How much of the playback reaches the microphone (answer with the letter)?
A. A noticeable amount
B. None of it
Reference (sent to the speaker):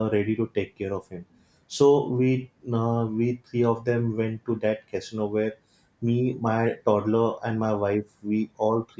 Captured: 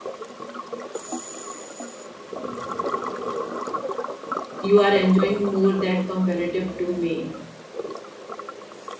B